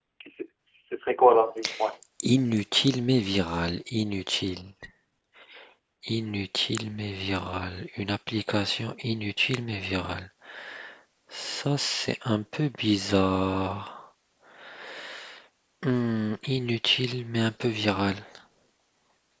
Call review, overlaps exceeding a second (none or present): none